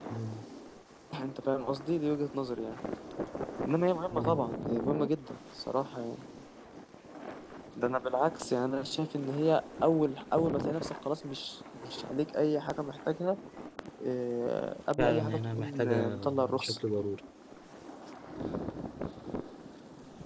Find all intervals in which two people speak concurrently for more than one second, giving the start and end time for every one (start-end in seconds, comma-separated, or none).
15.0-16.8